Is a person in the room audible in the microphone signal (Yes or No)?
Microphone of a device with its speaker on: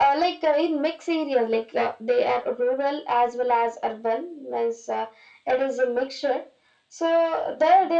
No